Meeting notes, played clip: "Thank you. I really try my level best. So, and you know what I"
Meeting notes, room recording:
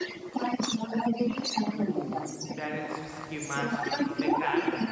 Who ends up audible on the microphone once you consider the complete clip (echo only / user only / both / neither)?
both